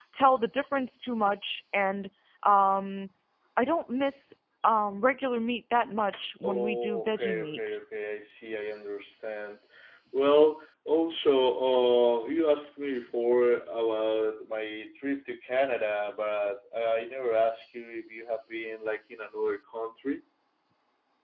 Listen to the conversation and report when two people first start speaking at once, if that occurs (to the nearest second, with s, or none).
6 s